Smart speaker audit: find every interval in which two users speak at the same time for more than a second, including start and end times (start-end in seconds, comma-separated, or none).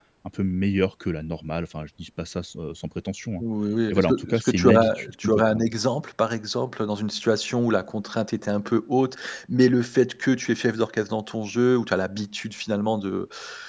3.9-5.7